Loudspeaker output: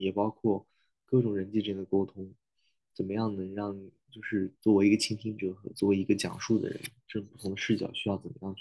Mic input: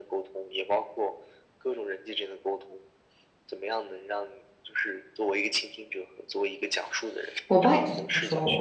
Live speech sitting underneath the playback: No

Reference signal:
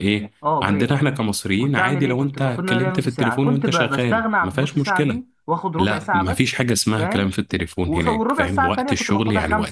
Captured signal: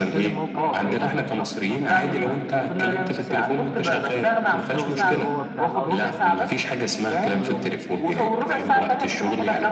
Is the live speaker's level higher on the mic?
No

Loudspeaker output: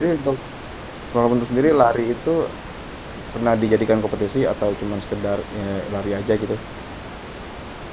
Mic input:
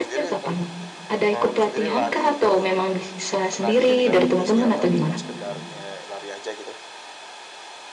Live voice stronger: Yes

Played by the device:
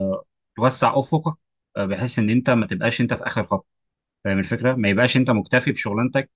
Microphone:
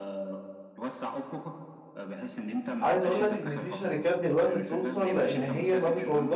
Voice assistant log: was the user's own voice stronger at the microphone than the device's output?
Yes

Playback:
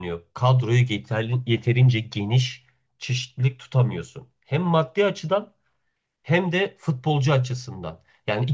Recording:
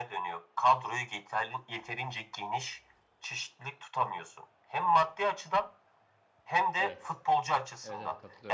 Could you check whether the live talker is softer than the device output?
Yes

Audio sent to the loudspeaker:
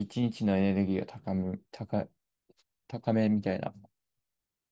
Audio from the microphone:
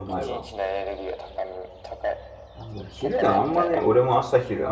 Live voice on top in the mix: Yes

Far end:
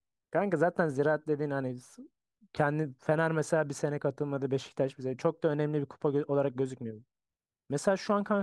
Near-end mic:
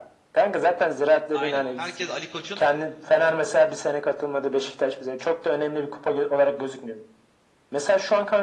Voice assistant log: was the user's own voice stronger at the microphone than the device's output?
No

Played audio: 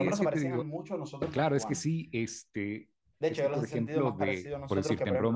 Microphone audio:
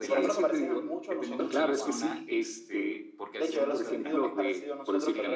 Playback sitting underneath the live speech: No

